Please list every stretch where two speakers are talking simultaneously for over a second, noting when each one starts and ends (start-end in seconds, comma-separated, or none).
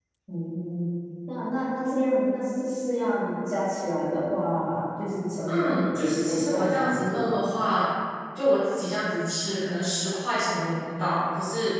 5.5-7.2